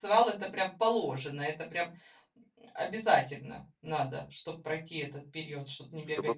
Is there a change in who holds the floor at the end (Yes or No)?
Yes